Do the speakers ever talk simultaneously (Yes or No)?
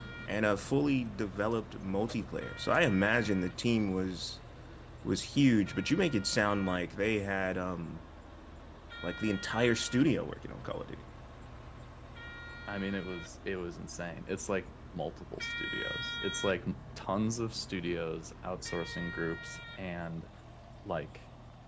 No